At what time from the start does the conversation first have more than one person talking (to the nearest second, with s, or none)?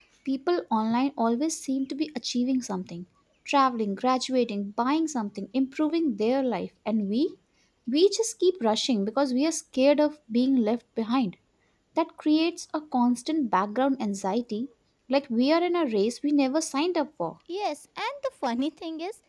none